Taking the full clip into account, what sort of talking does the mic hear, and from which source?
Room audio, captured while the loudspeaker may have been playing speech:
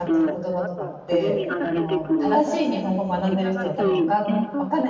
both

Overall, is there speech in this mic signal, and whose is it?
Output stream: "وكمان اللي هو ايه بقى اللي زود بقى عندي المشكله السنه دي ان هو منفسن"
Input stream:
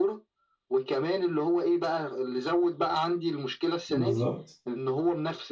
both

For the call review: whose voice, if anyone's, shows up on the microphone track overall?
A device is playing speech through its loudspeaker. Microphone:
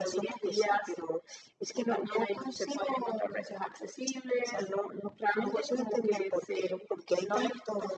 echo only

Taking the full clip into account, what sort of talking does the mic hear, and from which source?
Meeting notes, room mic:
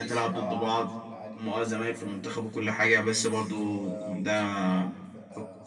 both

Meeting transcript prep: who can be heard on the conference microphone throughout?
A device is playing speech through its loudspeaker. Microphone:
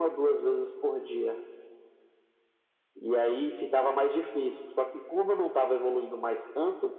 echo only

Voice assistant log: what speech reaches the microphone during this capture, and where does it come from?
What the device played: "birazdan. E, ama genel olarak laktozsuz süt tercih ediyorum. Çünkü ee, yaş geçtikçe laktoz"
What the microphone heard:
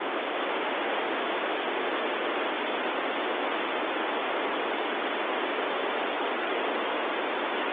neither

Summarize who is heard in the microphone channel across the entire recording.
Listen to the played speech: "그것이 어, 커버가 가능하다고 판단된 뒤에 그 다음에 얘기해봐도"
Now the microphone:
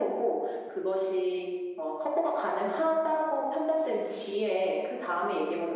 echo only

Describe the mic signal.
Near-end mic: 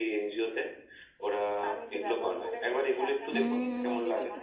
both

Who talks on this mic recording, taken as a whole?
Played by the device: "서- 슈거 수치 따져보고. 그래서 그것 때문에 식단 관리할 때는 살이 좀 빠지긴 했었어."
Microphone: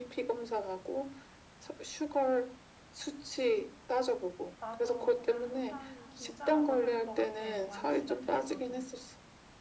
both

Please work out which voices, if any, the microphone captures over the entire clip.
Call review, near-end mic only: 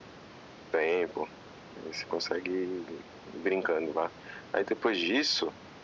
echo only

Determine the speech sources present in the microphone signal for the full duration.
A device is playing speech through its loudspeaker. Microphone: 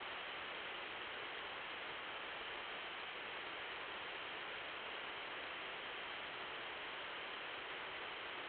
neither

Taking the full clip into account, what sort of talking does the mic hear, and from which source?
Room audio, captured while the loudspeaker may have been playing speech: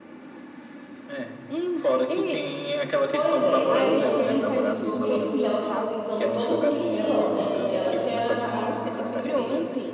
both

